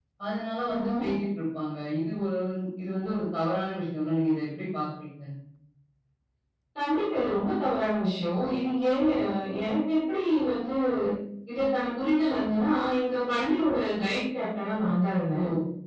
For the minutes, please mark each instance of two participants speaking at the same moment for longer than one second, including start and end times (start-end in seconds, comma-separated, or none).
none